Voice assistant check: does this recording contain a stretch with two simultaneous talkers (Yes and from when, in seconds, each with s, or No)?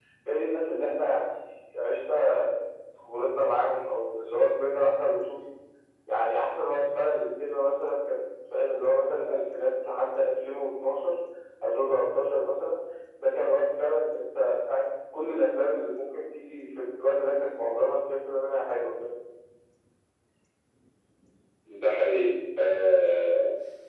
No